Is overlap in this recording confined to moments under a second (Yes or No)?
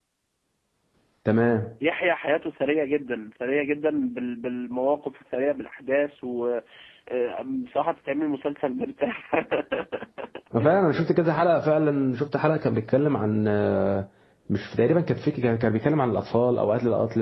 Yes